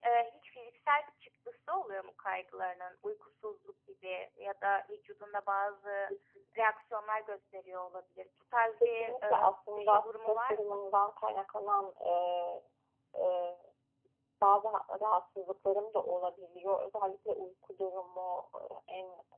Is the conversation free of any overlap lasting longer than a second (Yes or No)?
No